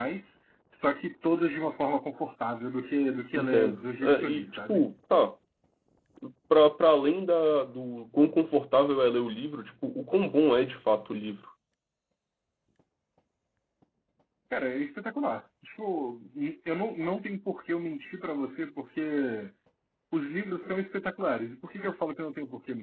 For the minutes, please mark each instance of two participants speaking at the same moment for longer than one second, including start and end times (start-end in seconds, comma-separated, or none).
3.3-4.8